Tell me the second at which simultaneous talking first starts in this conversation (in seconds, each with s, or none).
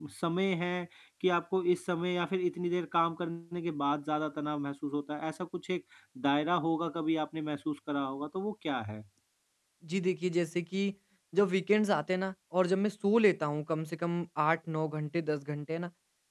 none